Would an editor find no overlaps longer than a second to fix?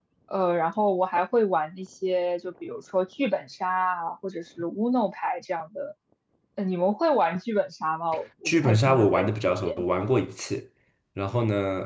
No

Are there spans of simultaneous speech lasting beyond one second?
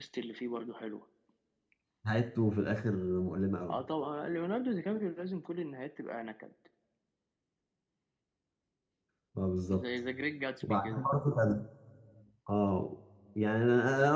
No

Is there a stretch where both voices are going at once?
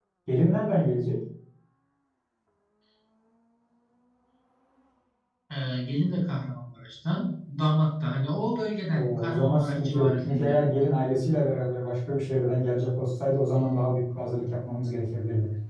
Yes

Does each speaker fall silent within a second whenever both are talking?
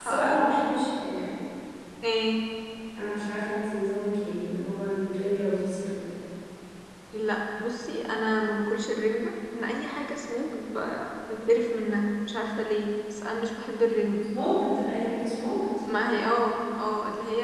Yes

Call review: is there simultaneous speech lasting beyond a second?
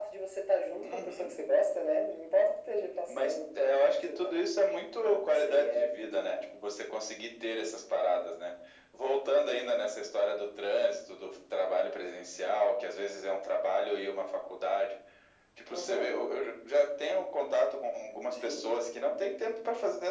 Yes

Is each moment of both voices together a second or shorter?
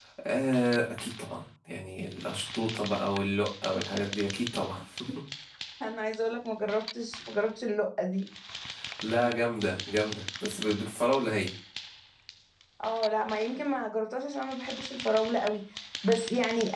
Yes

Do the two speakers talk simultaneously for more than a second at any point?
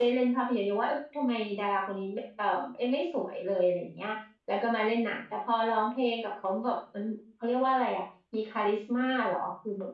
No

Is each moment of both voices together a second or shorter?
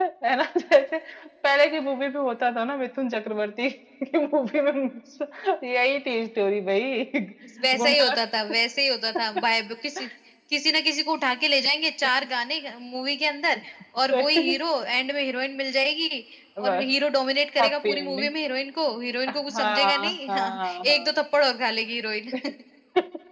No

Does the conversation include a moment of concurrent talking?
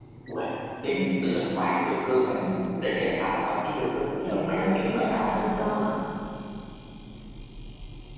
Yes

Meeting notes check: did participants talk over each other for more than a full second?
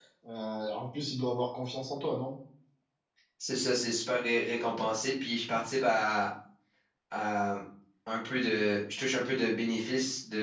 No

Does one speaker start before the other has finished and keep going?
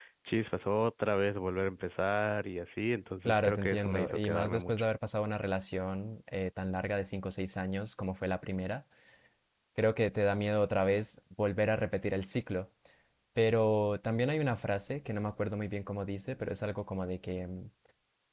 Yes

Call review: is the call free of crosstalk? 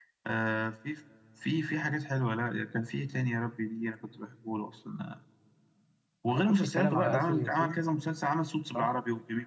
No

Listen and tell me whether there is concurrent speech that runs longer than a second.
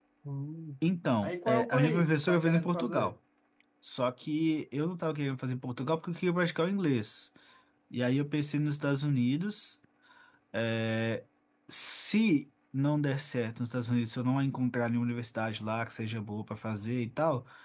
Yes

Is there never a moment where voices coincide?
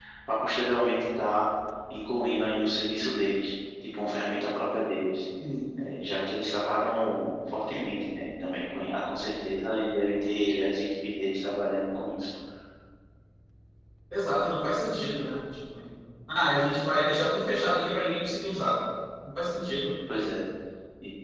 Yes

